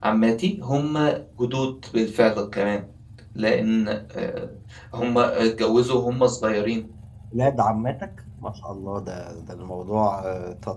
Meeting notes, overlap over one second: none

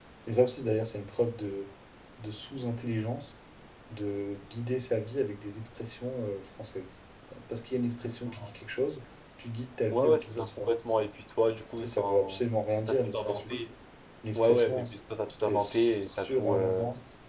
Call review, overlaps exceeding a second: present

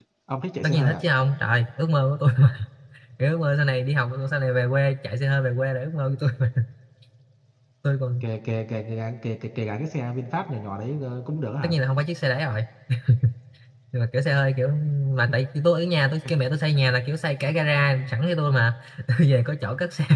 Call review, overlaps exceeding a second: none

